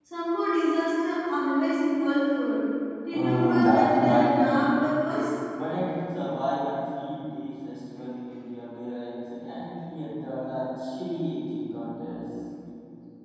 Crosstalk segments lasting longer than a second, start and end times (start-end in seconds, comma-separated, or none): 3.1-4.7